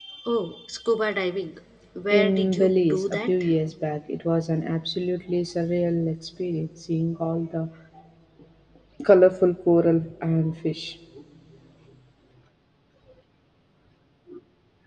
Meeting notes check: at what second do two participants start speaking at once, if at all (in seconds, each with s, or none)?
2.1 s